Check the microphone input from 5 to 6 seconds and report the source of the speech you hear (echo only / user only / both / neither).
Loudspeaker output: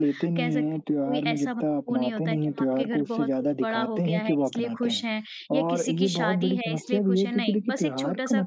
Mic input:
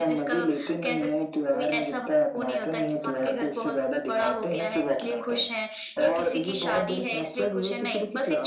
echo only